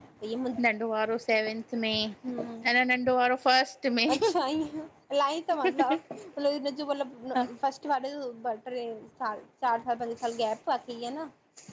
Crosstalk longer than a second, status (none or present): none